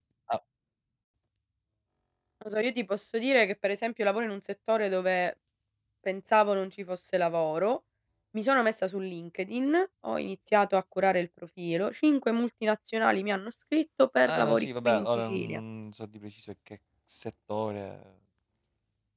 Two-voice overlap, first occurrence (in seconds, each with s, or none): 14.2 s